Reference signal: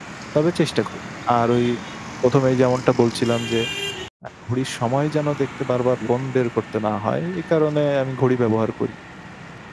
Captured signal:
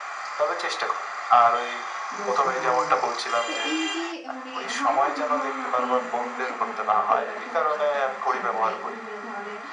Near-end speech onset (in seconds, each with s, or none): 2.2 s